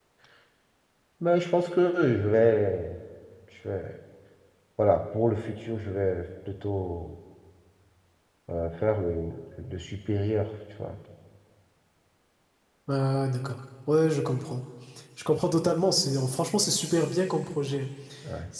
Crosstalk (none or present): none